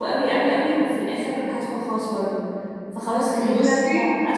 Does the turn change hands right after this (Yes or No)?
No